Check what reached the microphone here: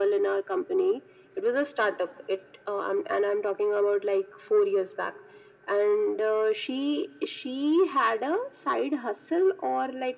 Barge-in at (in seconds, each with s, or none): none